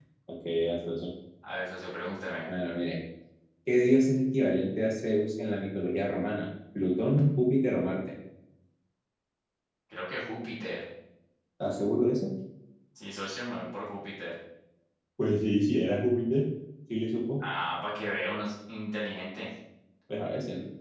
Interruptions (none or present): none